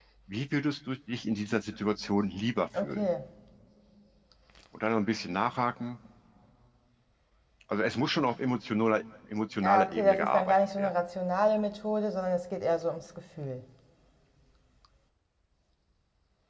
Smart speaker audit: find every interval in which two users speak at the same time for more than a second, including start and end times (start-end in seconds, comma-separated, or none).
9.6-10.9